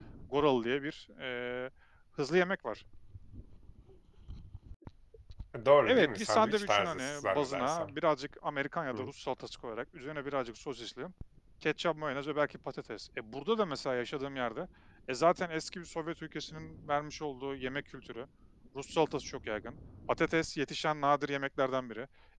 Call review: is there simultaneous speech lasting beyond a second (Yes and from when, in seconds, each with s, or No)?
Yes, from 5.8 s